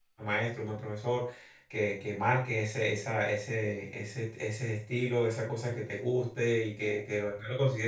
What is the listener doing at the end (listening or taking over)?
listening